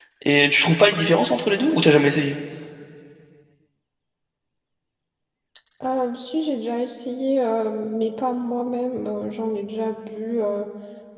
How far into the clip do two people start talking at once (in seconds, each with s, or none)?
none